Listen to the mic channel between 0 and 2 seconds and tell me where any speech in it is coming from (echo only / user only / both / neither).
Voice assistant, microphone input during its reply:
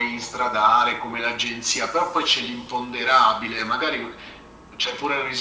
echo only